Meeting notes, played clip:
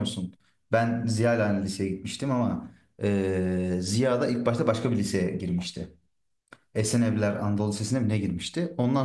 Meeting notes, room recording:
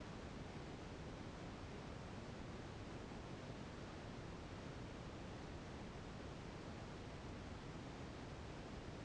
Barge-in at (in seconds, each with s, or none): none